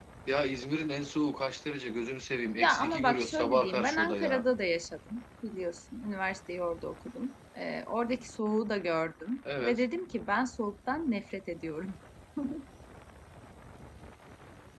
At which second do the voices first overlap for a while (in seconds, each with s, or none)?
2.6 s